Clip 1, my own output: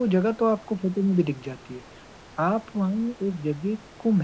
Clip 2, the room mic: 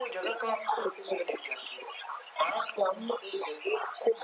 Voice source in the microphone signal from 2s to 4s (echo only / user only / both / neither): echo only